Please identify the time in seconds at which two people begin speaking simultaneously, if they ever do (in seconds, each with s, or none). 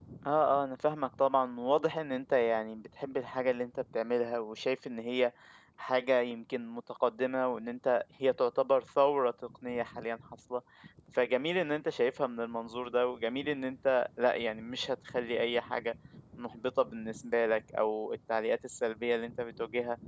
none